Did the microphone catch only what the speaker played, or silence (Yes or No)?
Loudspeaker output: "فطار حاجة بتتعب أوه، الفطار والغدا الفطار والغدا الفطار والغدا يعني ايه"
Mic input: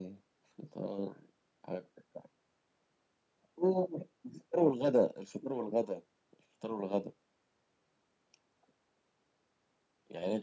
Yes